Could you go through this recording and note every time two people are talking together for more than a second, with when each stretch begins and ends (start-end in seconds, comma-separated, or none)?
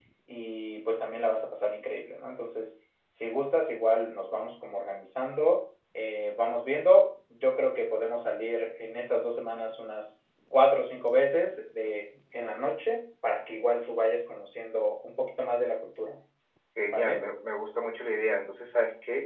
none